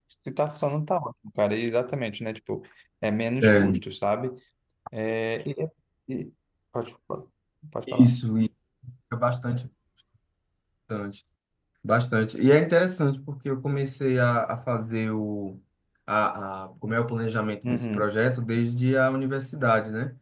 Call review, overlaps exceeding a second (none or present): none